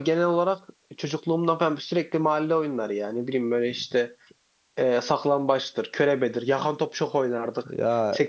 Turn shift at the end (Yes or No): No